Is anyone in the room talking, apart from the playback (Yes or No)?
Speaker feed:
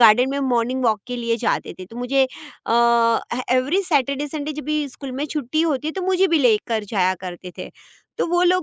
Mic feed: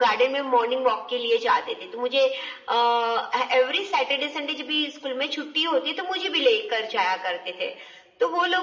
No